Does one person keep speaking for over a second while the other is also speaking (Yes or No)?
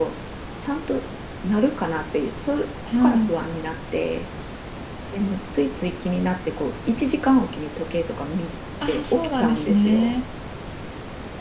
Yes